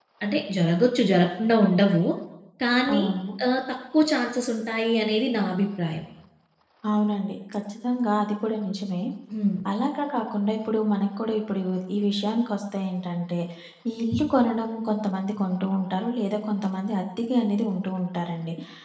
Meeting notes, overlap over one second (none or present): none